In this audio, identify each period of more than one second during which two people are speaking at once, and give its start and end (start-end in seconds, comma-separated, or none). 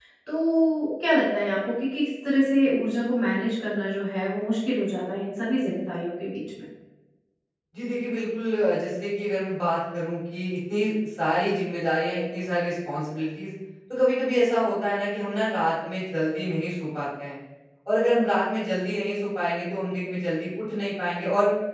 none